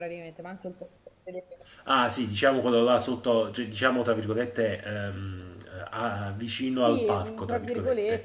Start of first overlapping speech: 6.8 s

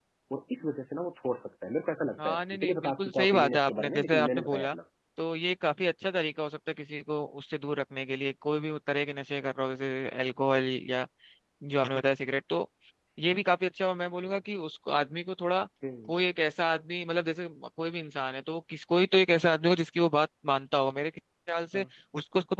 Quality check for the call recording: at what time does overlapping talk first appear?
2.2 s

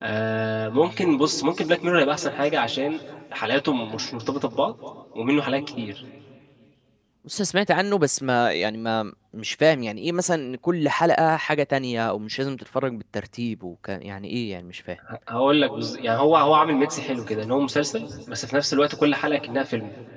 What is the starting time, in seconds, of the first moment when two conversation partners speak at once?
none

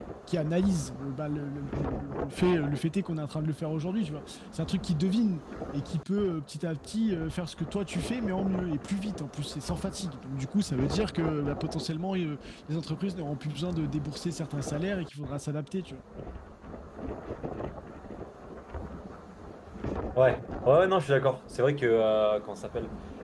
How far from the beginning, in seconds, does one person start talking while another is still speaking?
none

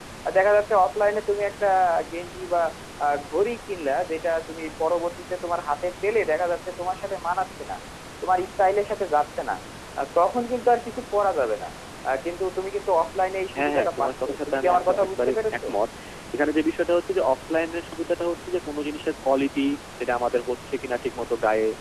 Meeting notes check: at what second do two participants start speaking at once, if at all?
13.5 s

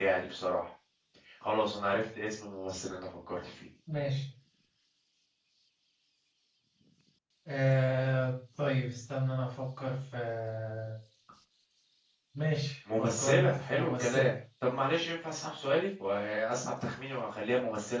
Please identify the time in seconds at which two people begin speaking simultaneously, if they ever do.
13.0 s

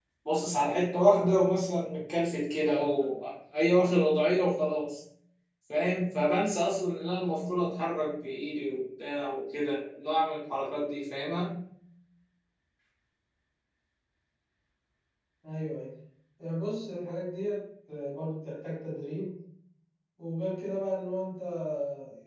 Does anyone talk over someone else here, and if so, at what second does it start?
none

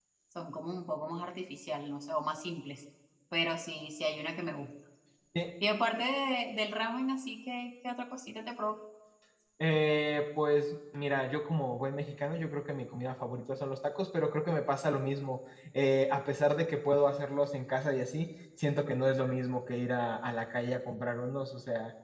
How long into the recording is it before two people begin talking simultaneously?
none

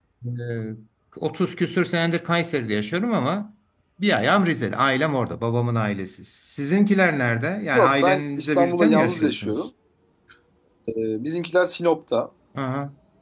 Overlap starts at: 7.7 s

